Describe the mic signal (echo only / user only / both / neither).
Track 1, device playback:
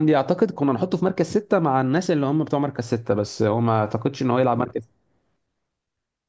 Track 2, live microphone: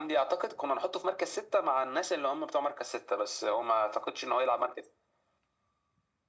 echo only